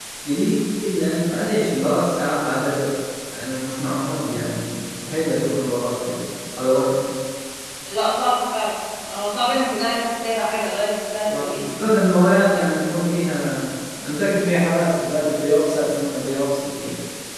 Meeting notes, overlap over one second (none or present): none